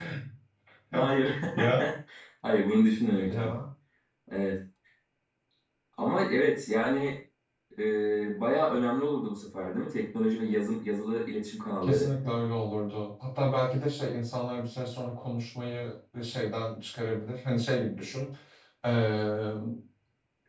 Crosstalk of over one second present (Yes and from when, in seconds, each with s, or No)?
No